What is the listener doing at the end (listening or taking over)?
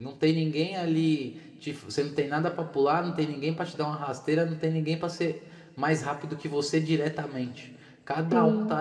listening